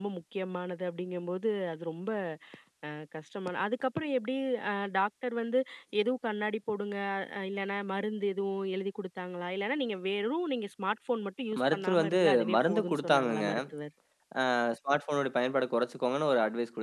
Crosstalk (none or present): present